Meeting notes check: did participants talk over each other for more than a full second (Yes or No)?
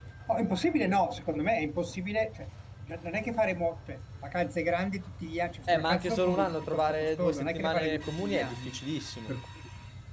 Yes